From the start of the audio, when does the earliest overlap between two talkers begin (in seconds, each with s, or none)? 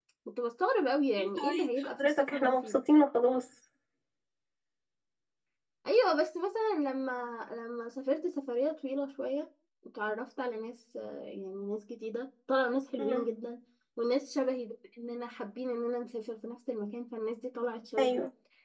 1.2 s